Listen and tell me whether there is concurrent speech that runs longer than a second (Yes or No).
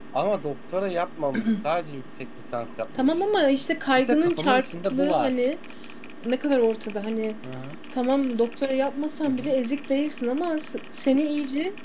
Yes